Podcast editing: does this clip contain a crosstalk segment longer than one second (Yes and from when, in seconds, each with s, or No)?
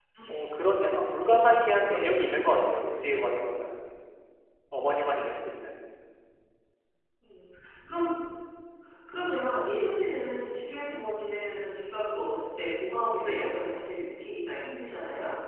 No